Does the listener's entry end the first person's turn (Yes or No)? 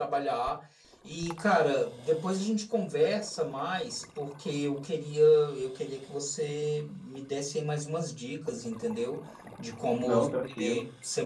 No